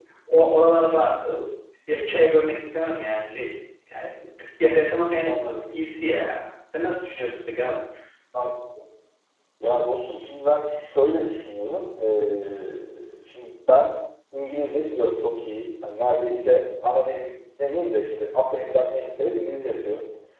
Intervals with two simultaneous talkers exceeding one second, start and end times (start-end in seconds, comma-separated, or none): none